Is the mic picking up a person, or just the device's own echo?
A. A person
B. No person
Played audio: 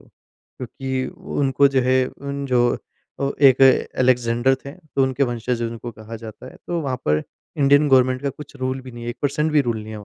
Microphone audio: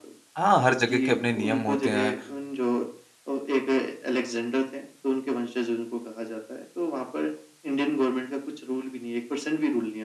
A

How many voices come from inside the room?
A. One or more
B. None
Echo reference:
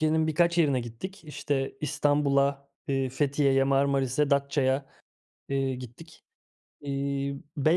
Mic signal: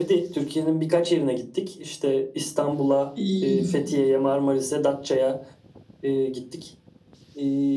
A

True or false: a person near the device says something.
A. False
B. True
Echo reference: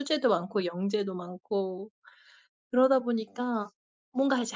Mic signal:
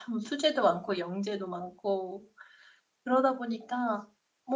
A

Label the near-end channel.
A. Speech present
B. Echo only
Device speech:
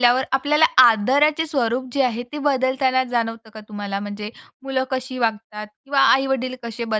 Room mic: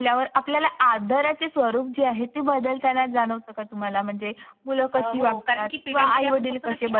A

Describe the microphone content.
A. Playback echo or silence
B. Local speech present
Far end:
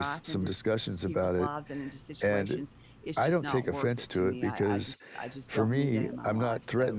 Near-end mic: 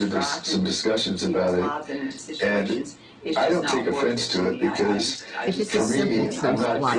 B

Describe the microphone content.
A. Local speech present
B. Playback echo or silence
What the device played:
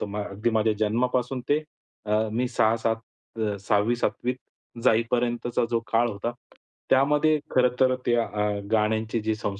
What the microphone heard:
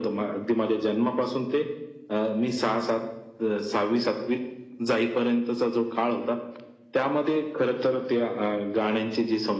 B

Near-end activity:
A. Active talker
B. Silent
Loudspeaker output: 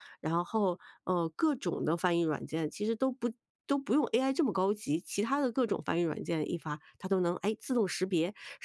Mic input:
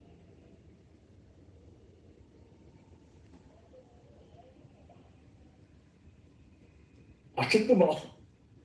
A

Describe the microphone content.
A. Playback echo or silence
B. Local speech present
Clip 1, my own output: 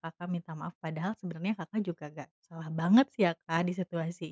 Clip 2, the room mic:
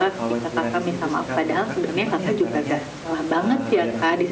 B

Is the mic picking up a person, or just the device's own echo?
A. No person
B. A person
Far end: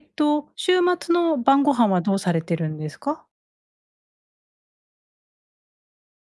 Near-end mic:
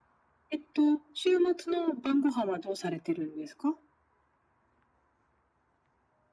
A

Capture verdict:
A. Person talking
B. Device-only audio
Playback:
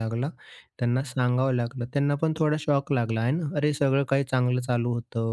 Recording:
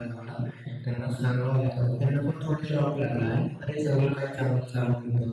B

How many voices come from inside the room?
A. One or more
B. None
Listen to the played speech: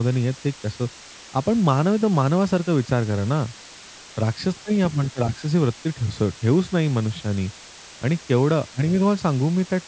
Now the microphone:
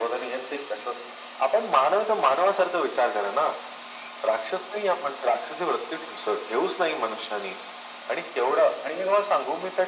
B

